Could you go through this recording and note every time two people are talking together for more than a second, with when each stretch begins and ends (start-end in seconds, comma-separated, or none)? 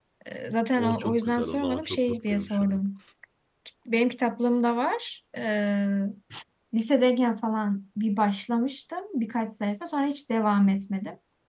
0.8-2.8